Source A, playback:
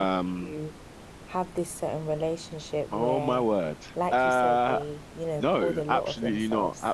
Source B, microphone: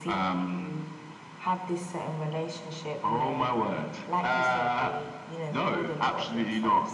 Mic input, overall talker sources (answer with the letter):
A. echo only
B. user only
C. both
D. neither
C